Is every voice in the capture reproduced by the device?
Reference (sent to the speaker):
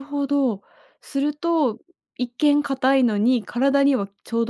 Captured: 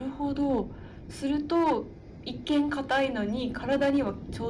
Yes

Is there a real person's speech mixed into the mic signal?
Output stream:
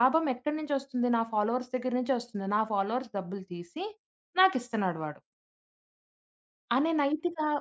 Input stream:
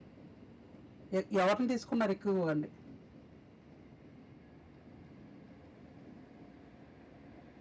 Yes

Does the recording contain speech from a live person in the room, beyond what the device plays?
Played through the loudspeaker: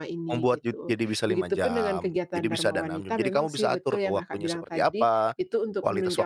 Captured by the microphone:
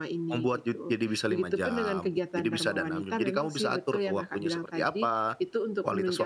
No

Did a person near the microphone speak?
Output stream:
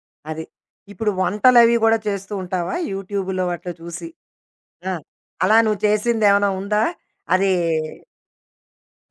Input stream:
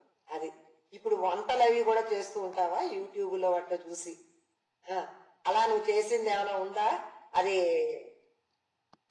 No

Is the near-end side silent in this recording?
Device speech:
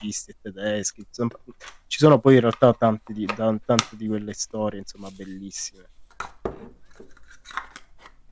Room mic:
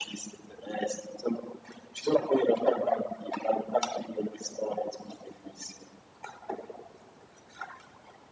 Yes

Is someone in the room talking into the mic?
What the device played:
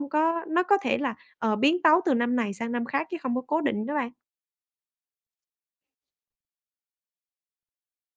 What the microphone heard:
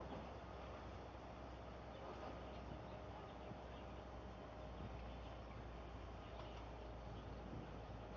No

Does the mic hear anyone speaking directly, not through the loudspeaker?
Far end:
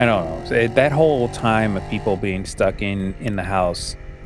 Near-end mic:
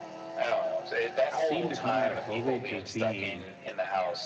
Yes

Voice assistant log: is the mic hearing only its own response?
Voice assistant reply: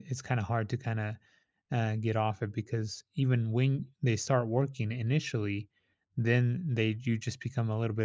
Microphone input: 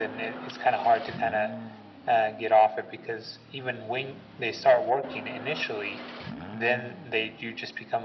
Yes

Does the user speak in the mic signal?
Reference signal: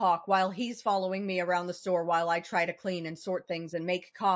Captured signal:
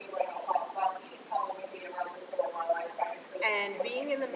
Yes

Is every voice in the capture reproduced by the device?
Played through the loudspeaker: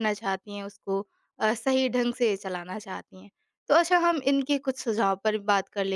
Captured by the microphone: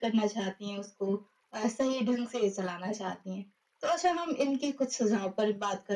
Yes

